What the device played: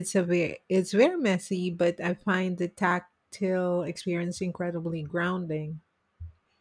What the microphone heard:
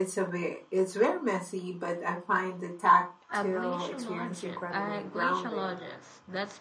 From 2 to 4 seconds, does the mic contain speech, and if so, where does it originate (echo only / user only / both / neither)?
both